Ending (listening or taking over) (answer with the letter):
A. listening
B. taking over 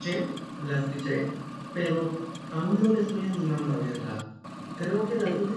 A